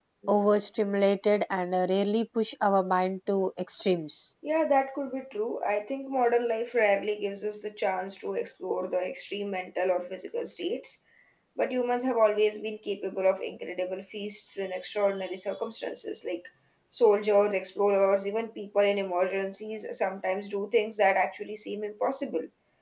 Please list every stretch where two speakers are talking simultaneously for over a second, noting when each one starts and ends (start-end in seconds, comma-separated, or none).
none